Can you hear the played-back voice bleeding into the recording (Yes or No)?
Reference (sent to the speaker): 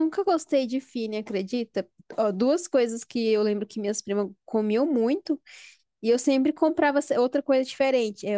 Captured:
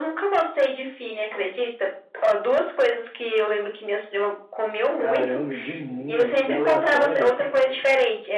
Yes